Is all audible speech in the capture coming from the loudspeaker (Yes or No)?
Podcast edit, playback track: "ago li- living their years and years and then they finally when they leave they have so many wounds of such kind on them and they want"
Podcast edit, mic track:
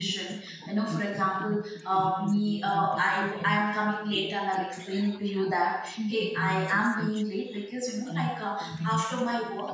No